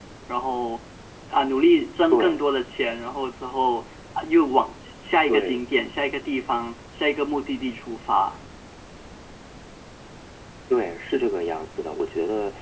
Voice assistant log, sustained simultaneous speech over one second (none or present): none